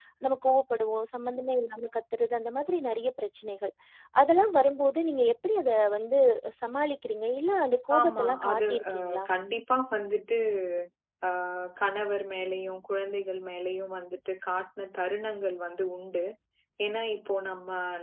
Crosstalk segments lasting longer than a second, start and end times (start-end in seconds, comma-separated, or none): 8.0-9.2